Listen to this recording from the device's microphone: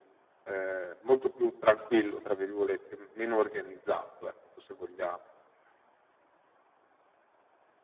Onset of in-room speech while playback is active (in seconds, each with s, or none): none